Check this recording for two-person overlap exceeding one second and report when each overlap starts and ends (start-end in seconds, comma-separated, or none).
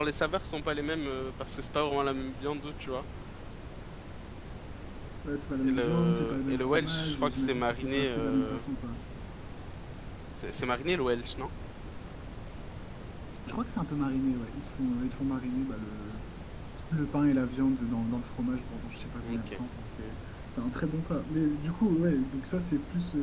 5.6-8.6